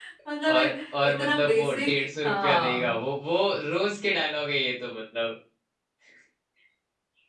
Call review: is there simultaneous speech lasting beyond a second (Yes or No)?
Yes